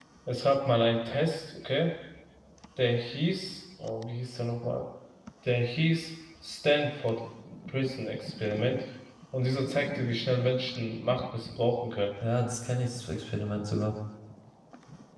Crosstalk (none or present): none